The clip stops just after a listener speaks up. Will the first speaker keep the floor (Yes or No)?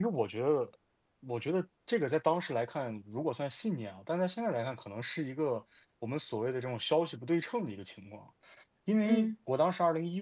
Yes